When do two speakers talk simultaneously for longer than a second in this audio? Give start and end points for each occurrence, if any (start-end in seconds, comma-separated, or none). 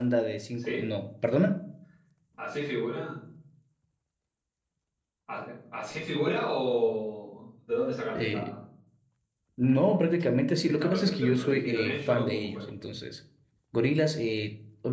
10.7-12.6